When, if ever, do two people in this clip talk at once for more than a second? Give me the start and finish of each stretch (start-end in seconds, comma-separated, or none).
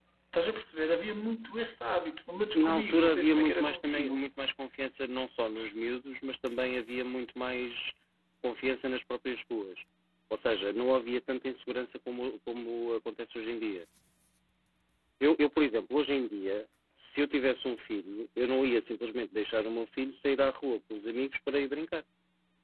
2.5-4.2